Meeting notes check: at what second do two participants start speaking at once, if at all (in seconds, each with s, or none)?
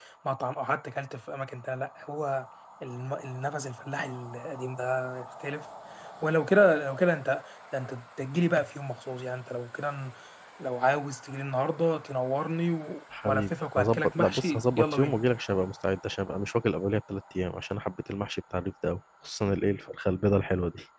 13.1 s